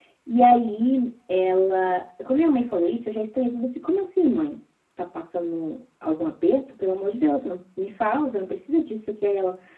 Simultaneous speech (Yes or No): No